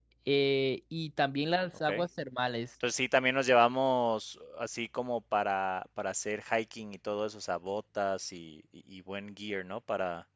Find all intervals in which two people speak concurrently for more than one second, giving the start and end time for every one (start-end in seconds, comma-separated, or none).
none